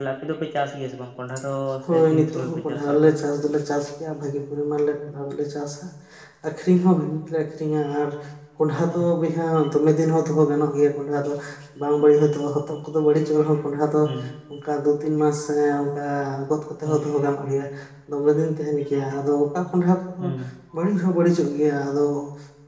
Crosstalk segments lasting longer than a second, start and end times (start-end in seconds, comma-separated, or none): 1.9-3.1